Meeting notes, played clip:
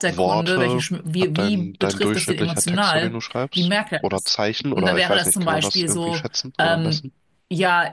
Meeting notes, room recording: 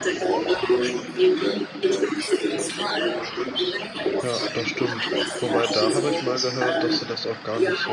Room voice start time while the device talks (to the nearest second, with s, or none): 4 s